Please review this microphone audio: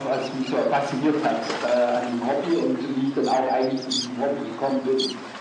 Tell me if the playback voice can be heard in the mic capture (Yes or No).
Yes